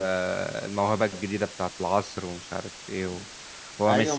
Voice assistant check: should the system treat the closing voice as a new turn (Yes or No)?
Yes